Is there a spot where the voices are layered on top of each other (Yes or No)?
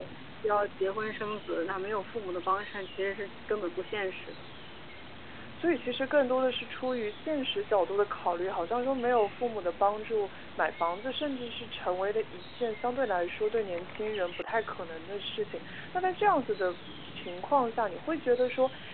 No